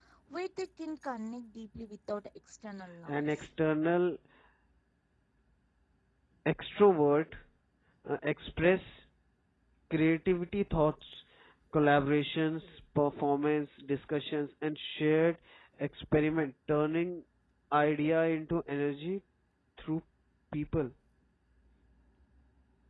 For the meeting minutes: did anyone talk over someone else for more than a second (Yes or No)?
No